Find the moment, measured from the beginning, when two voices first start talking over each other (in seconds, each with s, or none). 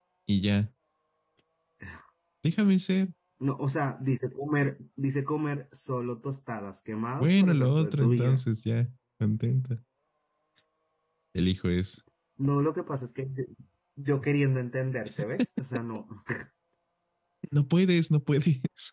7.2 s